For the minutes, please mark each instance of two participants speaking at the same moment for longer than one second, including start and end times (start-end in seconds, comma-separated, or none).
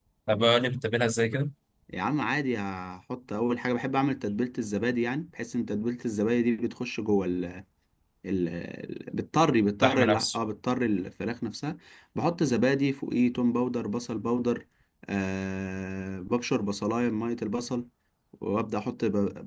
none